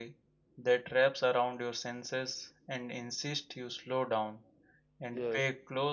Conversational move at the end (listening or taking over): listening